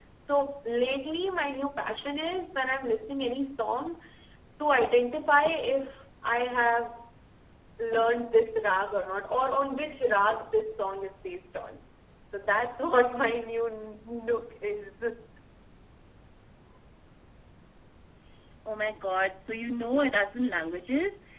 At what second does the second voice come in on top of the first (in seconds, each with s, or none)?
none